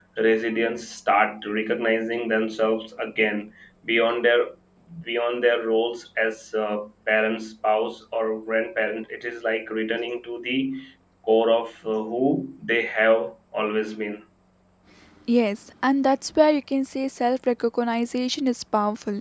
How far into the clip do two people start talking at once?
none

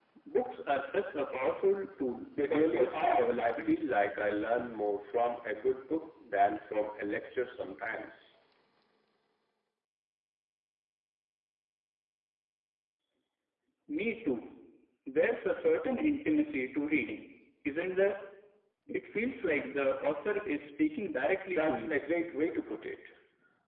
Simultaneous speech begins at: 2.5 s

